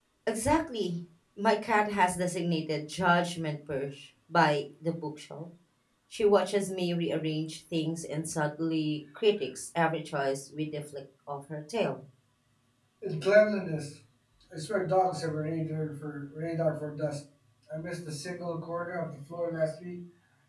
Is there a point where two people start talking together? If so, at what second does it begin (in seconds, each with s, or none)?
none